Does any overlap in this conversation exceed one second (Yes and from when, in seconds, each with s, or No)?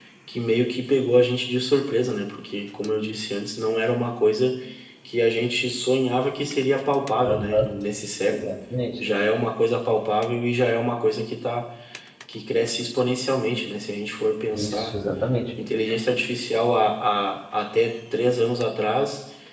No